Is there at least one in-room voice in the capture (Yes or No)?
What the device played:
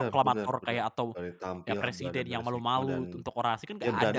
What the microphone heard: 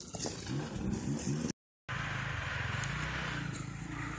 No